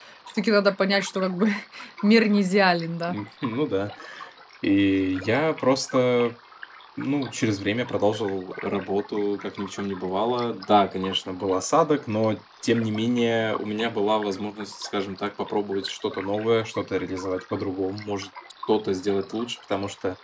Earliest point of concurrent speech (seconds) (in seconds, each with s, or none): none